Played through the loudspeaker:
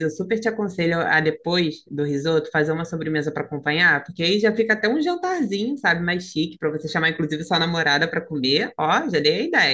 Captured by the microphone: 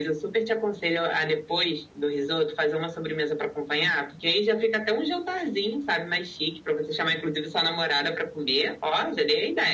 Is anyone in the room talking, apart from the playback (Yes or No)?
No